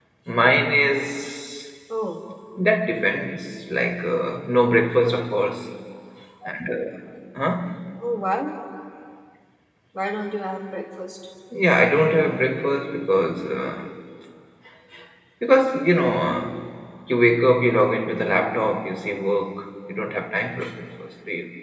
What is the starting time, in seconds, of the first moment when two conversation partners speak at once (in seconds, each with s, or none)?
none